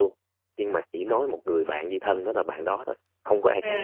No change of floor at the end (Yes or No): No